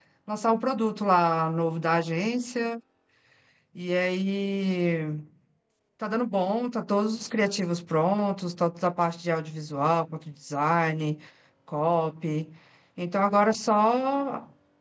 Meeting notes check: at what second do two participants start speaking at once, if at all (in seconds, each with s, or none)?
none